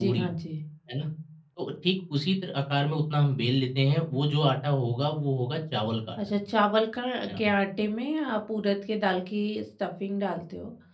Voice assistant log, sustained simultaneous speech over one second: none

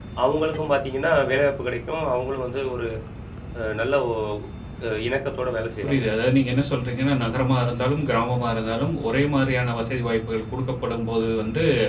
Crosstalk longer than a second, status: none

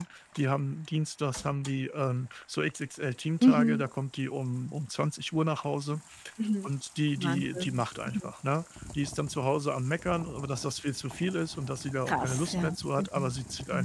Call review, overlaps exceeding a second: present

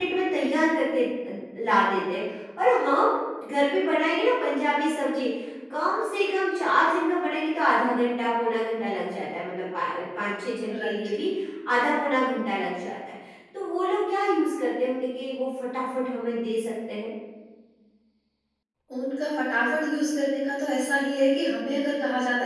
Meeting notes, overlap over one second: none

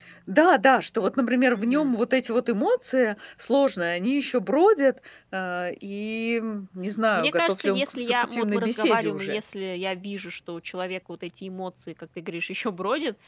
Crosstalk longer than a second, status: present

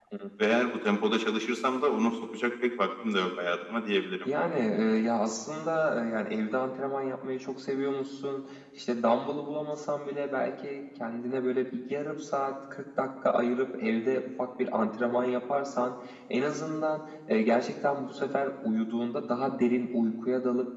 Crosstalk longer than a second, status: none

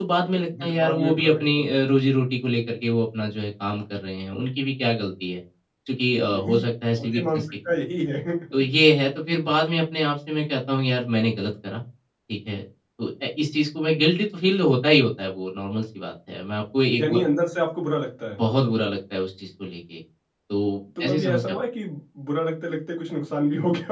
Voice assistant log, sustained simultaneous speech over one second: present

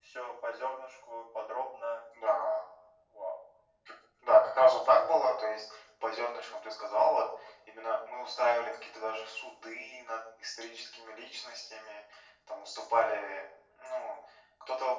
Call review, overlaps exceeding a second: none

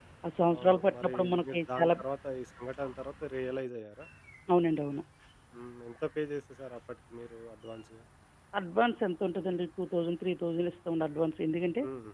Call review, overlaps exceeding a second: present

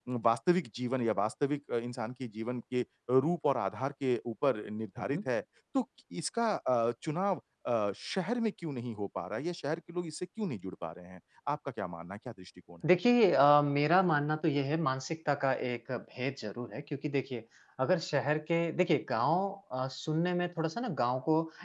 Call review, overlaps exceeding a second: none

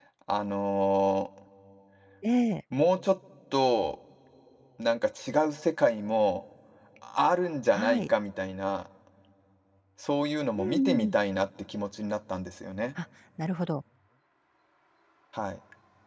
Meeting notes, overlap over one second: none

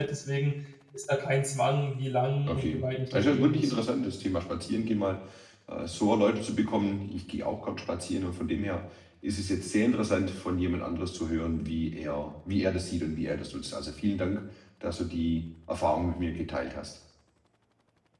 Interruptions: present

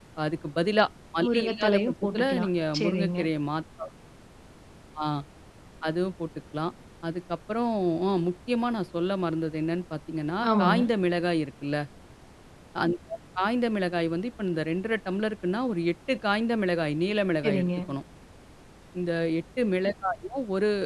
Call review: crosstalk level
present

